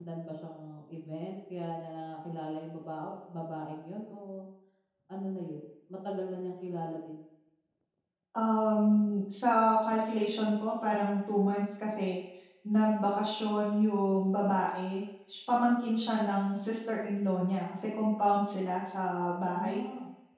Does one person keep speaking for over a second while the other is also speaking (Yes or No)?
No